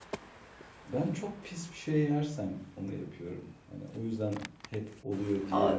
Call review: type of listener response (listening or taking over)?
taking over